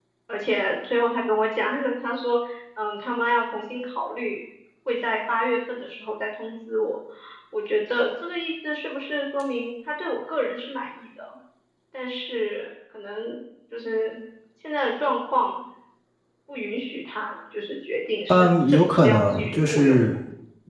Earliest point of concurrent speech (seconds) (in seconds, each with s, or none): 18.3 s